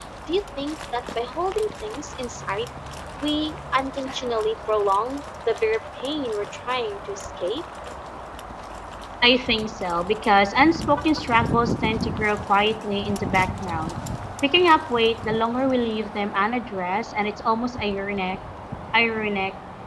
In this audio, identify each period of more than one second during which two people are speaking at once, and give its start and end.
none

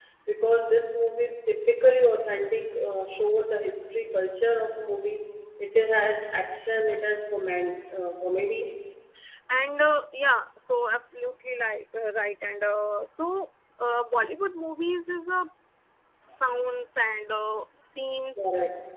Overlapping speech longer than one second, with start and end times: none

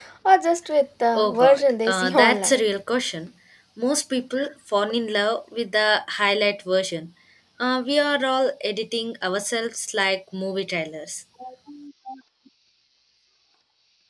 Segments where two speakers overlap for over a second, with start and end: 1.1-2.6

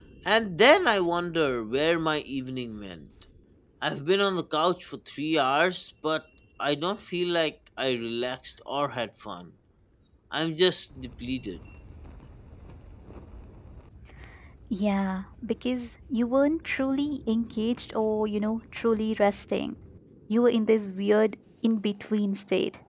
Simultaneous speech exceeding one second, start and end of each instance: none

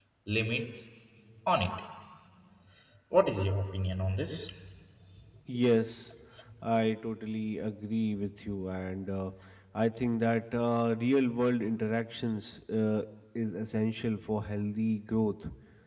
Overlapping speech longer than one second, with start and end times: none

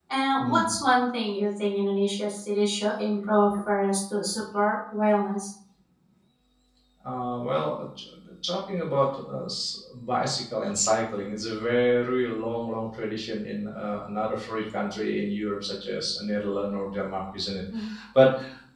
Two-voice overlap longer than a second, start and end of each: none

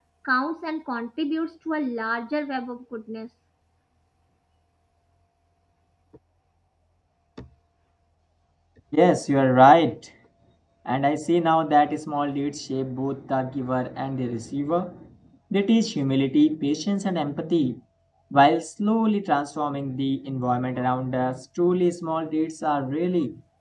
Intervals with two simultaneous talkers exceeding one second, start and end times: none

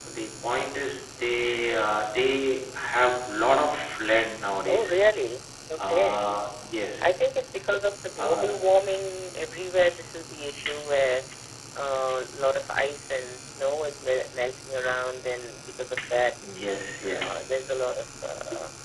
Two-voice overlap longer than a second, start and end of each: none

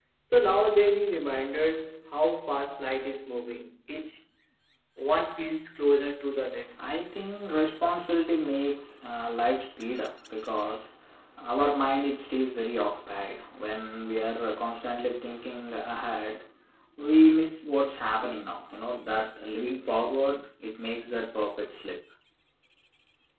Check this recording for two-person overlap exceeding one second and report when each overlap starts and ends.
none

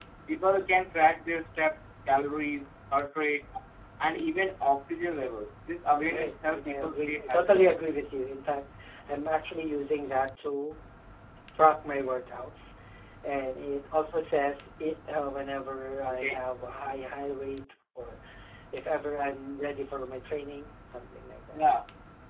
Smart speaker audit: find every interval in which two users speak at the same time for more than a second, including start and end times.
6.0-7.7

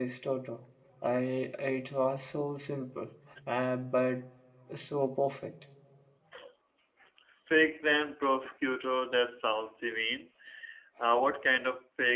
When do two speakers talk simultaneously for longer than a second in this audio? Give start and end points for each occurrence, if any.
none

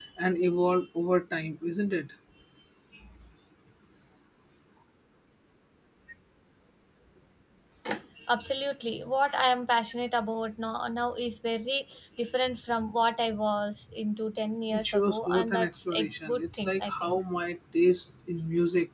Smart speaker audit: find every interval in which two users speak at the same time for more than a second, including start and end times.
14.7-17.2

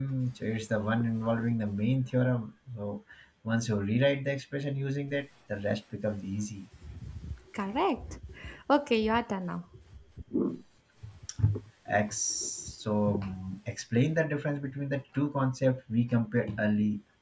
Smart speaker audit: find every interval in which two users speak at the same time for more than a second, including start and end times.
none

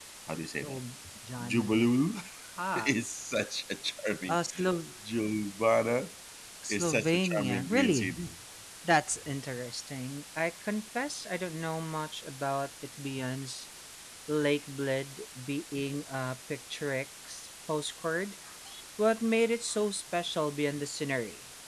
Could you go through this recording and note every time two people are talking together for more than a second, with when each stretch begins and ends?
6.7-8.3

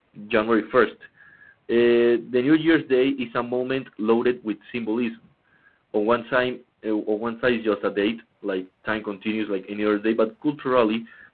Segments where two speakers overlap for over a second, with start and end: none

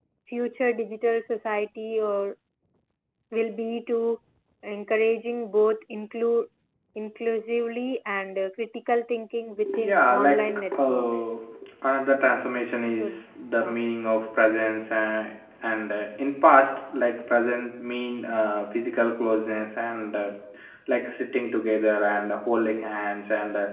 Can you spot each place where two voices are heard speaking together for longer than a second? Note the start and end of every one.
9.8-11.3

